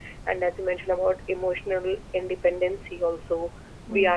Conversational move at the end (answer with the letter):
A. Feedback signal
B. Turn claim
A